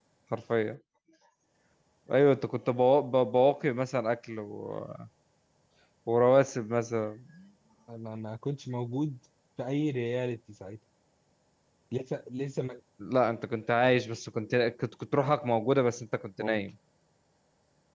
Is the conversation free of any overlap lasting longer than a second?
Yes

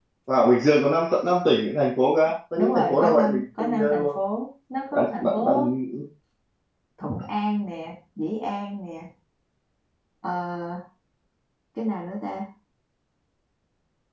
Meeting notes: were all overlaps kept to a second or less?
No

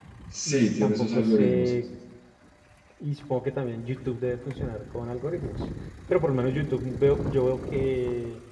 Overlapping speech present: Yes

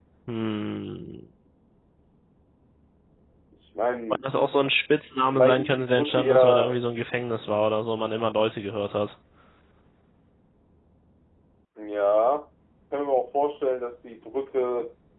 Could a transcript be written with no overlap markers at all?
No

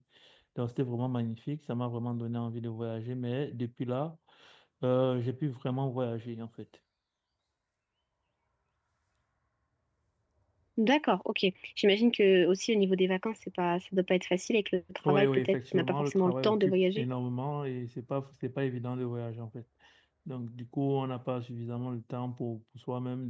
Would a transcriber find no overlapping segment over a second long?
No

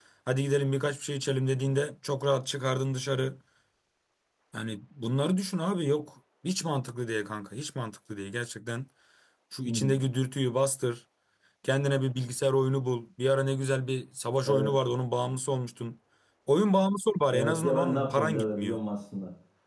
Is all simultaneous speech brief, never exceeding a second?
No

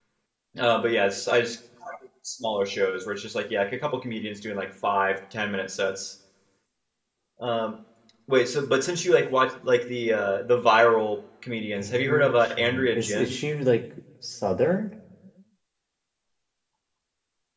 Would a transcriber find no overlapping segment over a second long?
No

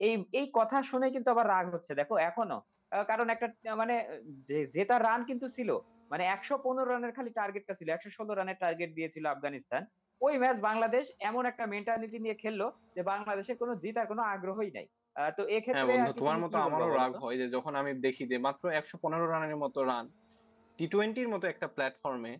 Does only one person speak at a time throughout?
No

